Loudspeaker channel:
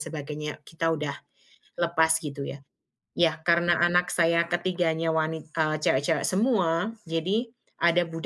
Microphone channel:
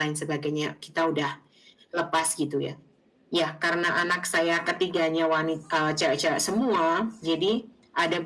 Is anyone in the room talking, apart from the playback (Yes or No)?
No